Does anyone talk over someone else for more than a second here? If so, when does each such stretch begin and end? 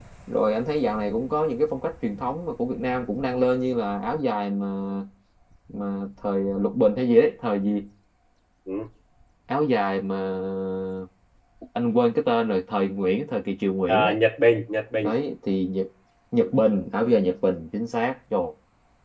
none

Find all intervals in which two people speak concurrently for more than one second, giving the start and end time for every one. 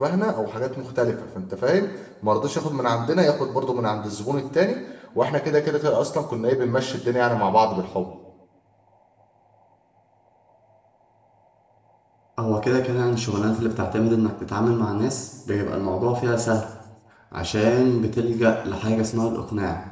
none

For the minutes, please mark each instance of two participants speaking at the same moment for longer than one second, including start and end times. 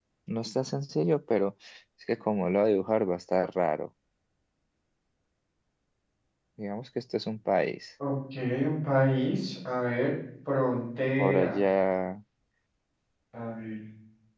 none

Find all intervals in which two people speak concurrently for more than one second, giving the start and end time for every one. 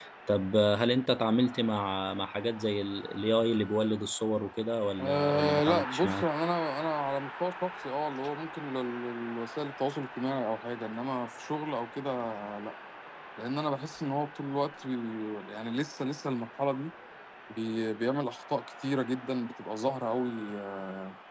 5.0-6.2

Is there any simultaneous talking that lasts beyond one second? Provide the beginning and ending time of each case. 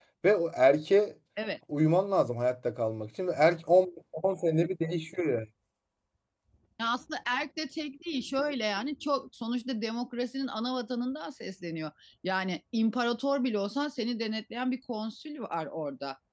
none

